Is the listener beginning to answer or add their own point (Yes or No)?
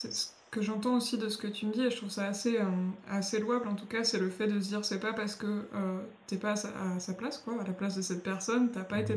No